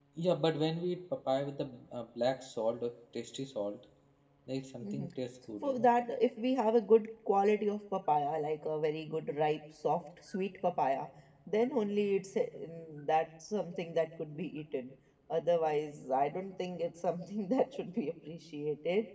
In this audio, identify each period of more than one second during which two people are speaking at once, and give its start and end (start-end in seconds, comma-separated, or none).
none